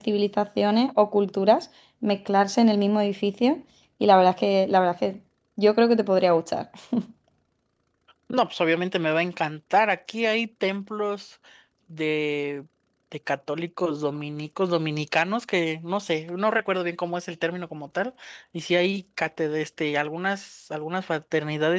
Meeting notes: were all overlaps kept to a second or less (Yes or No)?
Yes